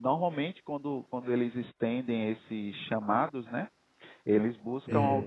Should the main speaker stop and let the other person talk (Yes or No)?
No